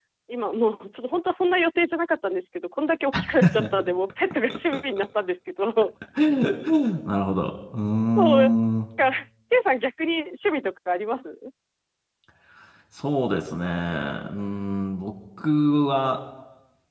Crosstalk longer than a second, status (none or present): none